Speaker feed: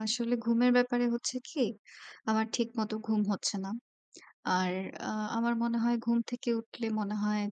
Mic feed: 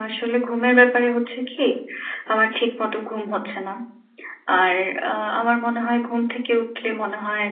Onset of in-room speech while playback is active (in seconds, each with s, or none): none